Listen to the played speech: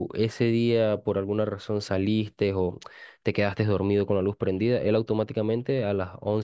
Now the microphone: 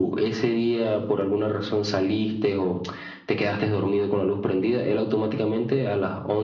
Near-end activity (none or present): none